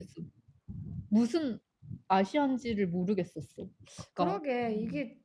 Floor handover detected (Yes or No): Yes